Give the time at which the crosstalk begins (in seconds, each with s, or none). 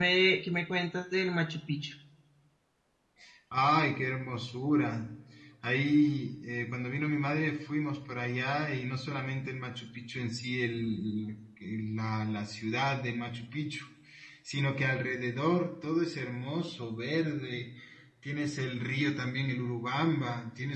none